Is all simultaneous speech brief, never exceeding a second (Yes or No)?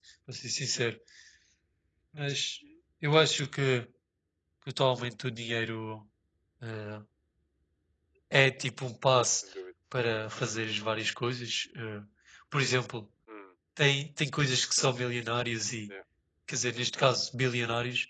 Yes